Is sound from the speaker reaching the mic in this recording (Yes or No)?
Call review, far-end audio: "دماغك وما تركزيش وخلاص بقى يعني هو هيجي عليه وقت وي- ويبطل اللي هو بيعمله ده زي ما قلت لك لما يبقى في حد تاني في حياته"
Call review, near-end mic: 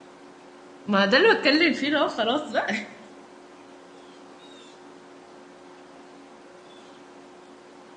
No